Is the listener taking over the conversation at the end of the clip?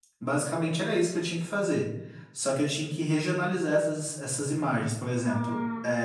No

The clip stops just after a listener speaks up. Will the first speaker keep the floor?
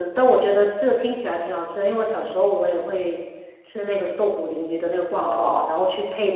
Yes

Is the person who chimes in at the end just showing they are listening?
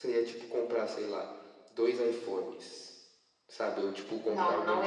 No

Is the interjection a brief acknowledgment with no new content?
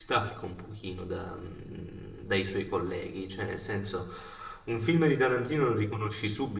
Yes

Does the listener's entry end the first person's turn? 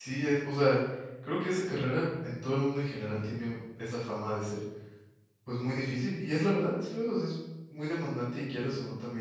No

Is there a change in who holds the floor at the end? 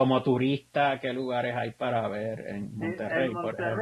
Yes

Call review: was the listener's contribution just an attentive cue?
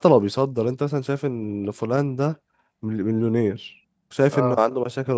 Yes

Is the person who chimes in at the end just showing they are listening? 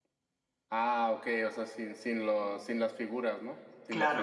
No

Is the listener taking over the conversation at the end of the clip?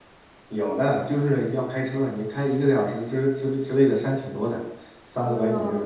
Yes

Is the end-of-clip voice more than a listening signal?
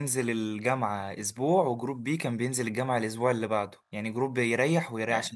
No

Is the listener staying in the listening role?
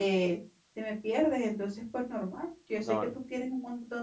Yes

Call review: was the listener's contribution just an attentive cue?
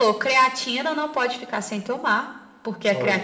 Yes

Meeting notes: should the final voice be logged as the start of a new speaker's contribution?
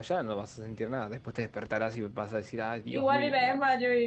Yes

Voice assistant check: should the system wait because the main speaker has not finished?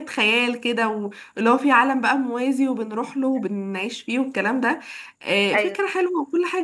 Yes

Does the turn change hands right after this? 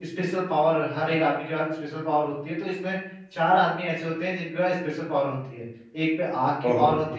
No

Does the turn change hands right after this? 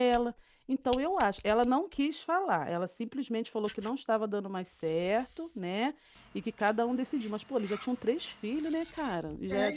Yes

